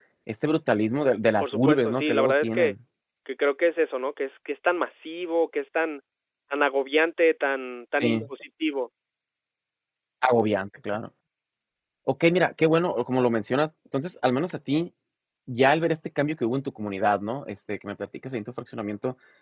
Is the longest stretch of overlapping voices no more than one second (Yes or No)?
No